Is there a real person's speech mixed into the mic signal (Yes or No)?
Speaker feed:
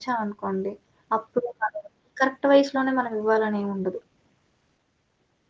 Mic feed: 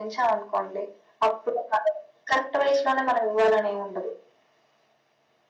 No